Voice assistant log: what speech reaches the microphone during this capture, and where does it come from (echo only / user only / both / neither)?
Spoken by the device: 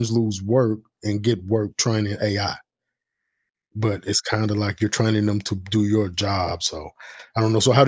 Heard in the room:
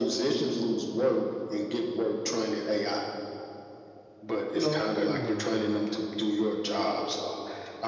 both